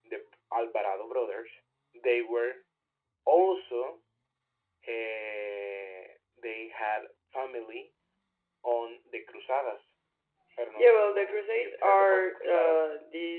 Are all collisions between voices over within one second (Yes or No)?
No